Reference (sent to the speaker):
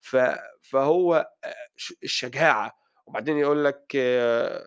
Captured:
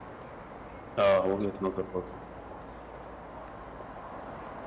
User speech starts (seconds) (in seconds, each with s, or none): 1.0 s